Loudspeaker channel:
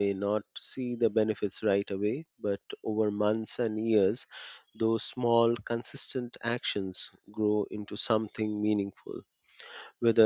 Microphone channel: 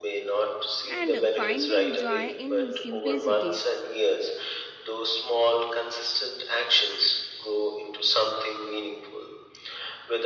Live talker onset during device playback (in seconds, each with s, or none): 0.9 s